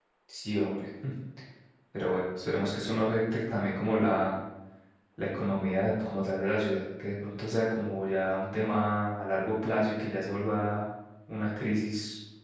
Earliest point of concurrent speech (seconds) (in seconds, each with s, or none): none